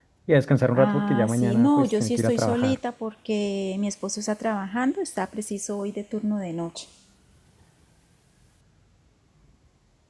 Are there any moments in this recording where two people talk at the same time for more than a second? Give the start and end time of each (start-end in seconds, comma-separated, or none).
0.7-2.8